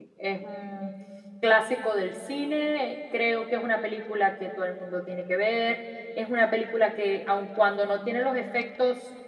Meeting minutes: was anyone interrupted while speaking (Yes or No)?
No